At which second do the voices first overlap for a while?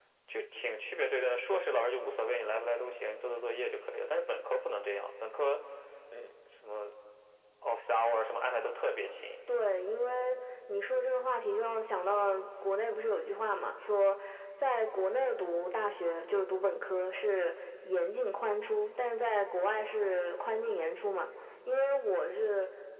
none

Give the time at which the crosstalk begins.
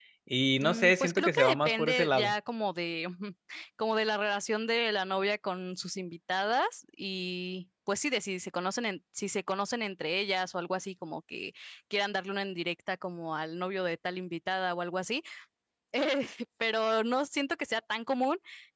0.6 s

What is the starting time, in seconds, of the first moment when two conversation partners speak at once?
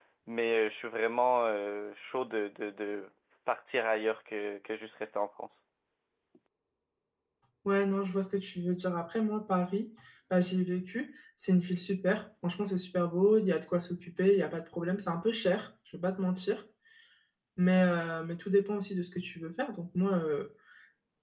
none

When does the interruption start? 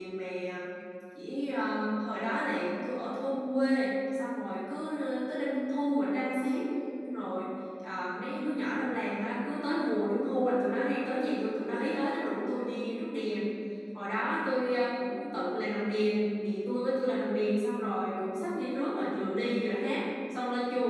none

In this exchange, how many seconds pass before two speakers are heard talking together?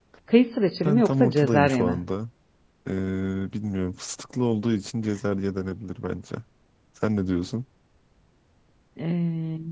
0.8 s

